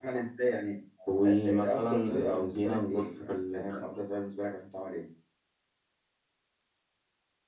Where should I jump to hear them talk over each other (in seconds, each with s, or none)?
1.3 s